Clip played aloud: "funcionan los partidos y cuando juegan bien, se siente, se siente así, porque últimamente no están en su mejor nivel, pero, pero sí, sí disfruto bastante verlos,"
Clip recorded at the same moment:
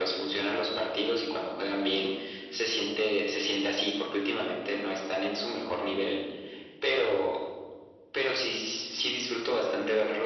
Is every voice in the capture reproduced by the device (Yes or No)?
Yes